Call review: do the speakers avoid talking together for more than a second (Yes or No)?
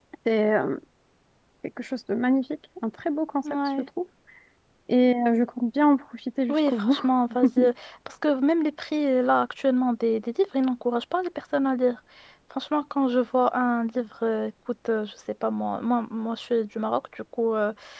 Yes